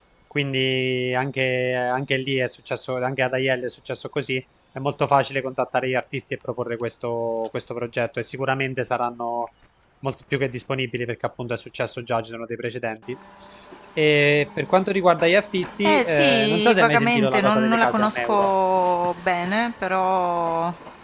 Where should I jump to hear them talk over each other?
15.8 s

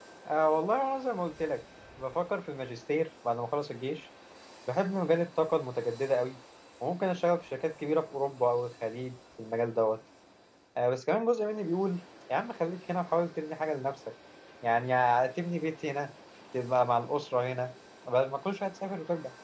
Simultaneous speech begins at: none

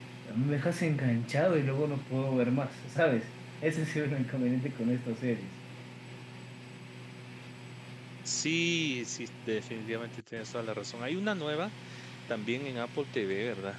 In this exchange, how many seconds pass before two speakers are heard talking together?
none

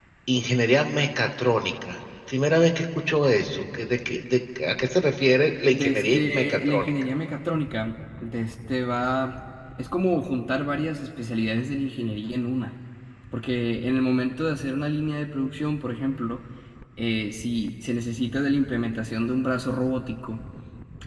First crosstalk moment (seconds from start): 5.6 s

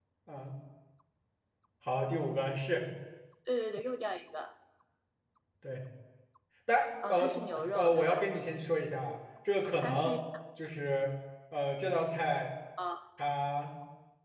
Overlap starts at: 7.1 s

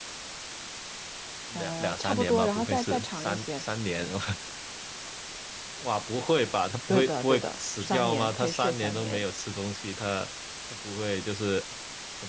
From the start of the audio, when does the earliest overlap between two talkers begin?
1.6 s

